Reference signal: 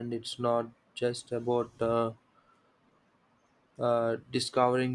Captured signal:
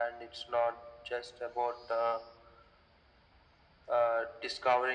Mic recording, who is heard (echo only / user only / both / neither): echo only